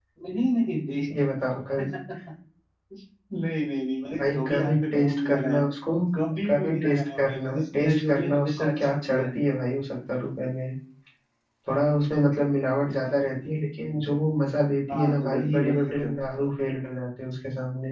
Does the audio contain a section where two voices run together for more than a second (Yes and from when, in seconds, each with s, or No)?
Yes, from 4.1 s